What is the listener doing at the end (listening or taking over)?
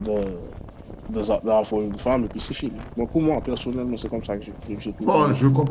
taking over